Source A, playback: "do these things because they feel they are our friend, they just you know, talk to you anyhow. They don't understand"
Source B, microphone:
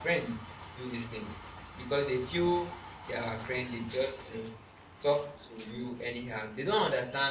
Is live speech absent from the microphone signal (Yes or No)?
Yes